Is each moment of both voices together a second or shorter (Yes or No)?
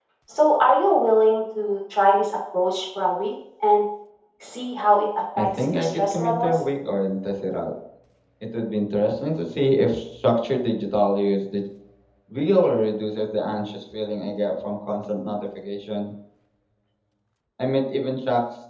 No